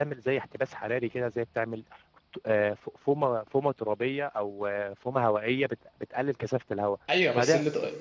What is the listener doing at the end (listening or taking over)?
taking over